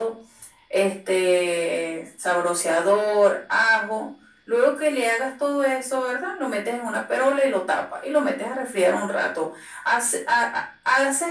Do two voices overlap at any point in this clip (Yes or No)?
No